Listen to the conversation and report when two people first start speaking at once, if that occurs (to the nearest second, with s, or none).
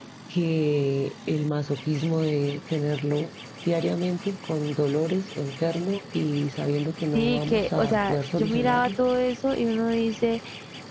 7 s